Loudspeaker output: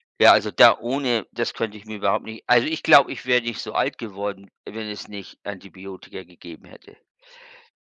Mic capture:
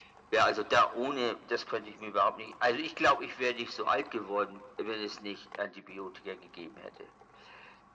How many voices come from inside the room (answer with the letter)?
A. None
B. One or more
A